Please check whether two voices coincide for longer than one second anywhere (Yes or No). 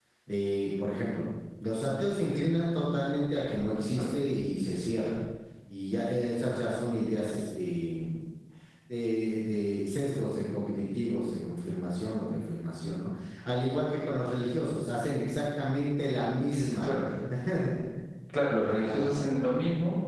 No